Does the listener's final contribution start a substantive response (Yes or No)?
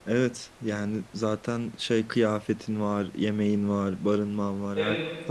Yes